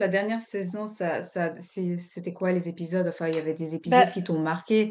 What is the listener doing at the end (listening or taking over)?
listening